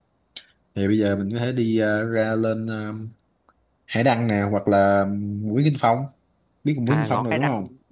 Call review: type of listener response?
taking over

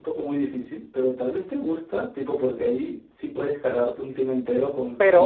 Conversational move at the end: taking over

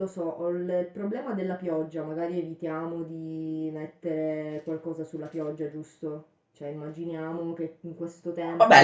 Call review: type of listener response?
taking over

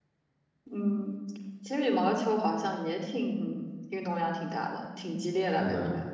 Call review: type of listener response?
taking over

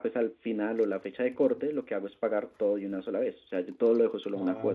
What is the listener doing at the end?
taking over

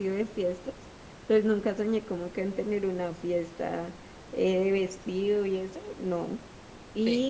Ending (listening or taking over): listening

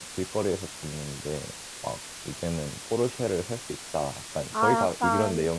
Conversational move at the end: taking over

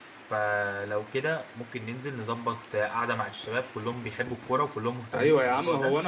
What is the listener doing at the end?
taking over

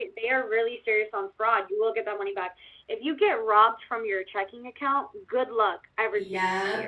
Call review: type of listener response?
taking over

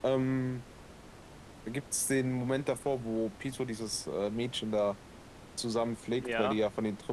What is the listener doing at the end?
listening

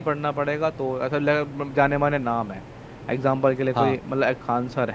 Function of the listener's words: listening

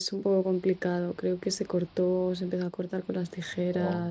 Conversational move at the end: listening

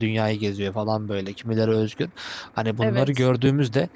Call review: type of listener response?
listening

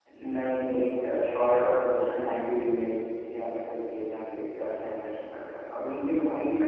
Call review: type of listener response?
listening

